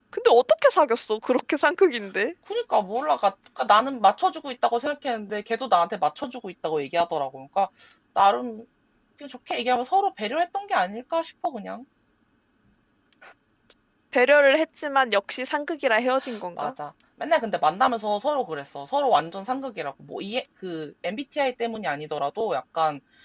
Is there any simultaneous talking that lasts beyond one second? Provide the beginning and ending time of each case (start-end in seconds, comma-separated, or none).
none